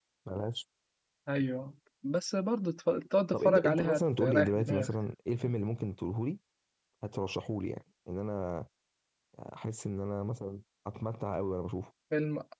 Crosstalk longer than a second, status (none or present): present